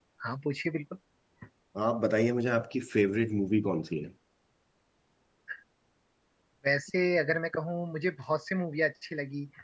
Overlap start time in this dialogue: none

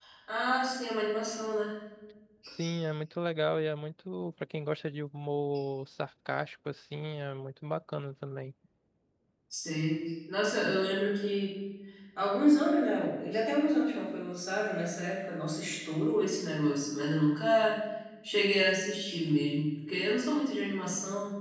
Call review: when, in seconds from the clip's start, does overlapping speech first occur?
none

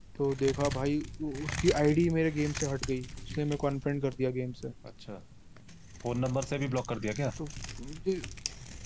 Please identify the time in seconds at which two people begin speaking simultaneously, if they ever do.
none

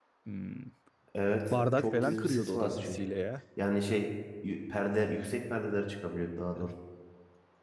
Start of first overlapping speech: 1.5 s

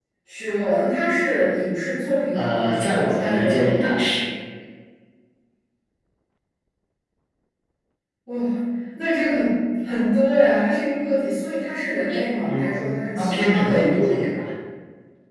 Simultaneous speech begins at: 2.3 s

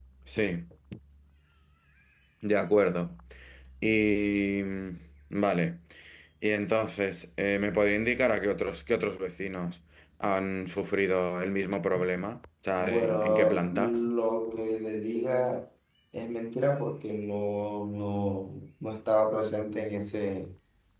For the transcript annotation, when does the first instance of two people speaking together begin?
12.8 s

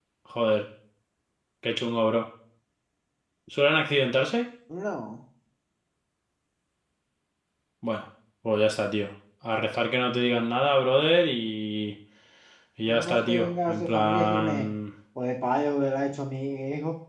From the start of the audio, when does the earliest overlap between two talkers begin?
12.9 s

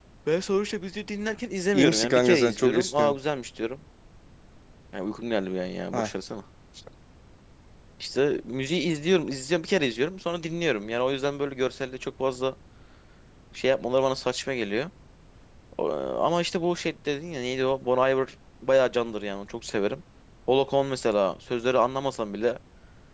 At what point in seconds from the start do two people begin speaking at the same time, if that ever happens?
1.7 s

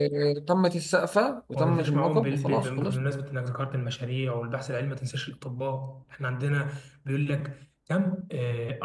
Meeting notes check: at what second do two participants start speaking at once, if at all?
1.5 s

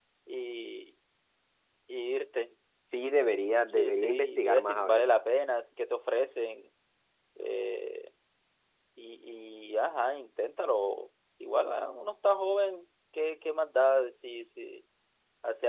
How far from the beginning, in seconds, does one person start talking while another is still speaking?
3.7 s

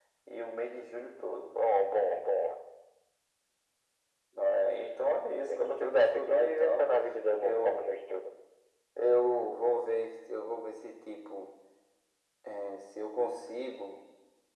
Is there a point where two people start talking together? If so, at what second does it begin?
5.5 s

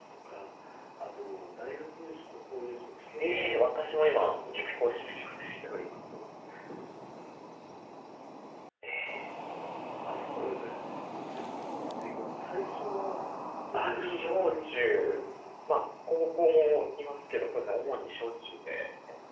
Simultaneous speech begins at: 3.2 s

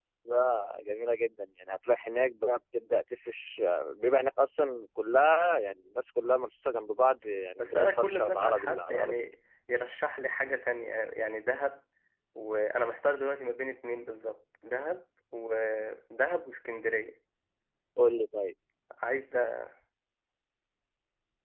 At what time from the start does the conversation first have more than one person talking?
7.6 s

